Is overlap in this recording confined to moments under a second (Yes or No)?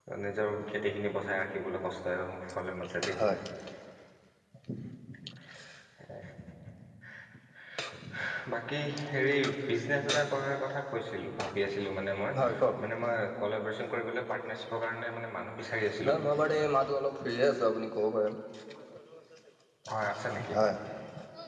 Yes